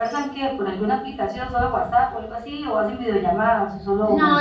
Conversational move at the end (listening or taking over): taking over